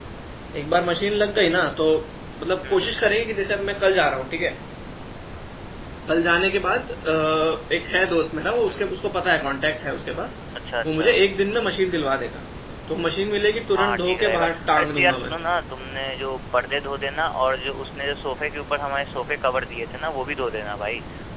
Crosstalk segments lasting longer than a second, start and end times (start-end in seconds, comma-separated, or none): 13.7-15.4